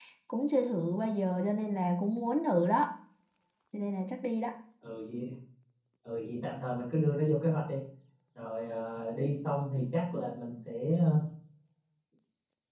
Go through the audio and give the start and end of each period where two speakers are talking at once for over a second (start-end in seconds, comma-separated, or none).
none